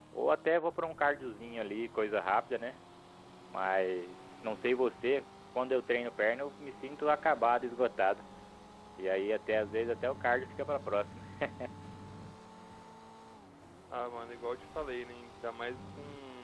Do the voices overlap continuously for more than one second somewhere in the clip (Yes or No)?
No